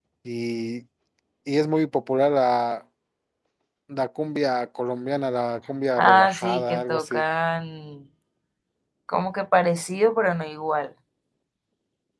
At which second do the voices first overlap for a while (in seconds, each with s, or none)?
6.0 s